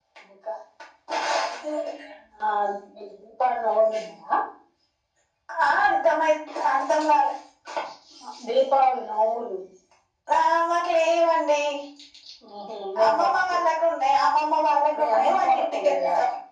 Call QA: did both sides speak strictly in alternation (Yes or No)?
No